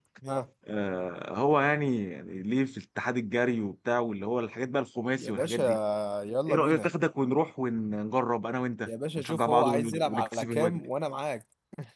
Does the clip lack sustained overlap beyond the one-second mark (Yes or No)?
No